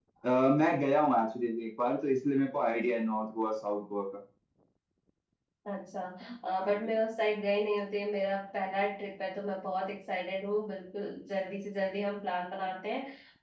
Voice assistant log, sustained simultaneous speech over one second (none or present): none